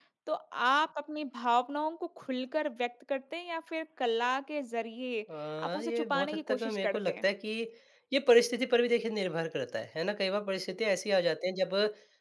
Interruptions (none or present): present